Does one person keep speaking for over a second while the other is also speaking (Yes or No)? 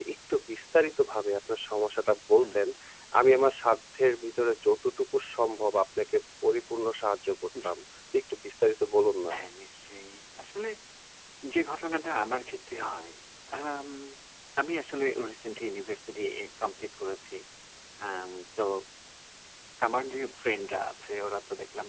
No